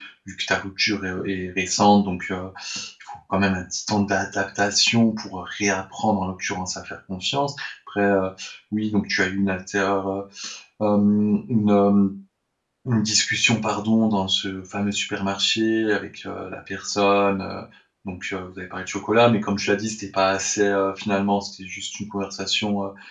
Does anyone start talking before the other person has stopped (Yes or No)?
No